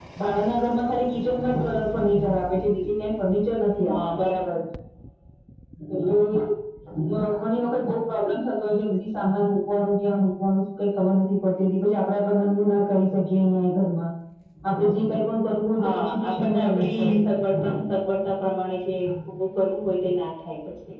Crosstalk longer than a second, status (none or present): present